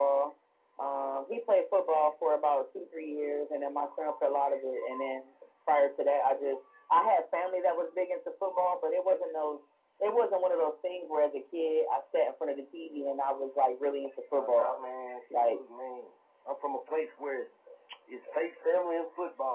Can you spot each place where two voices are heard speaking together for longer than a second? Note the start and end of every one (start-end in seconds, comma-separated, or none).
none